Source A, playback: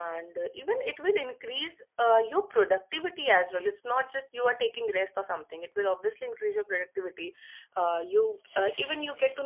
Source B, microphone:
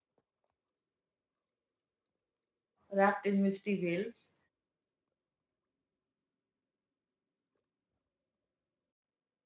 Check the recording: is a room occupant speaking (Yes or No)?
Yes